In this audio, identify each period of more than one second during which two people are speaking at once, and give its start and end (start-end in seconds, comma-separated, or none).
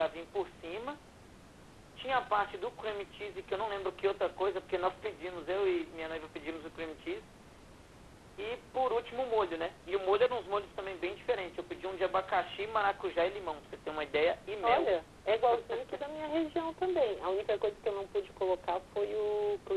none